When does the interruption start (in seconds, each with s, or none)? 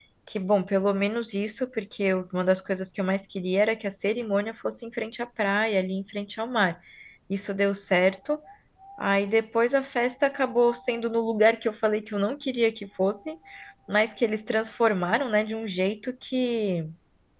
none